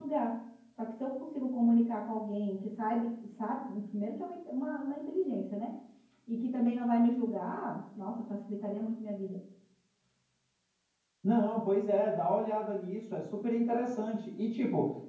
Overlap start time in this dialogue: none

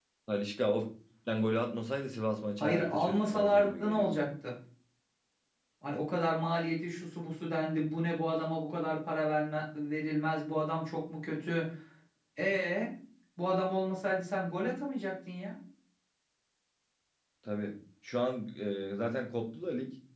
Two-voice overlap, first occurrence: 2.6 s

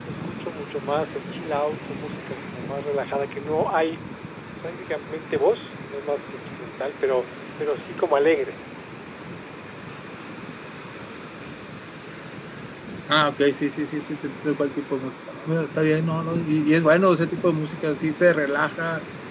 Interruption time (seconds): none

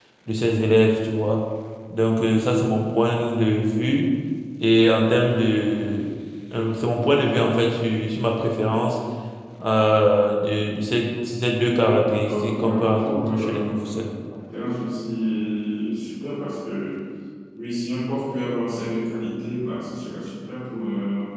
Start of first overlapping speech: 12.3 s

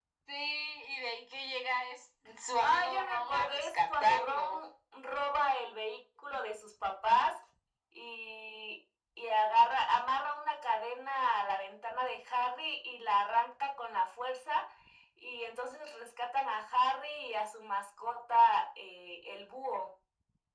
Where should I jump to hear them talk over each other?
2.6 s

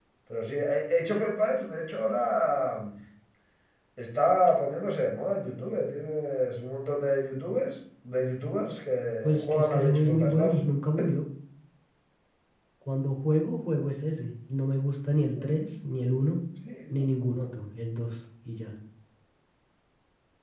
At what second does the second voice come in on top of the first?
9.2 s

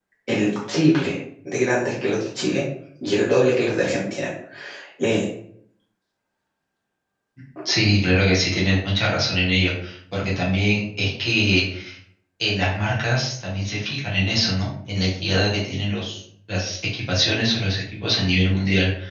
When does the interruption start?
none

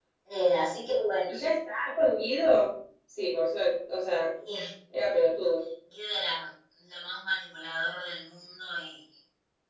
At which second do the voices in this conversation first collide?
none

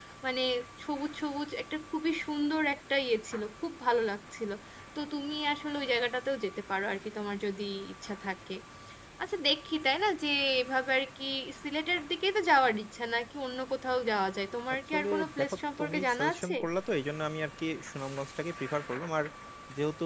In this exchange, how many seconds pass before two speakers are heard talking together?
14.9 s

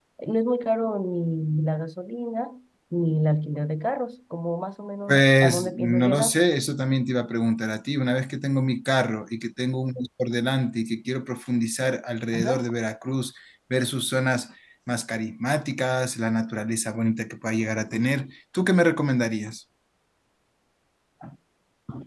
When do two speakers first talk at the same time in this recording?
5.1 s

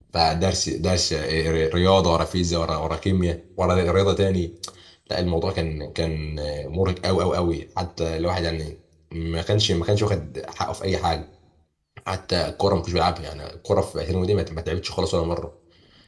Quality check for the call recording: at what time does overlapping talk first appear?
none

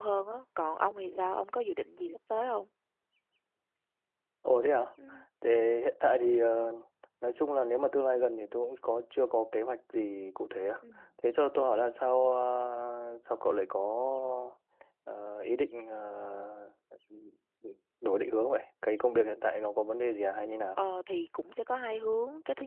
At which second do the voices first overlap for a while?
none

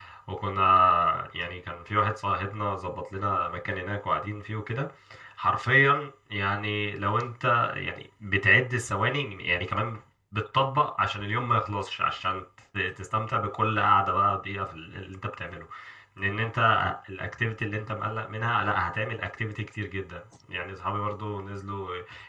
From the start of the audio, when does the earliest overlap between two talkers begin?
none

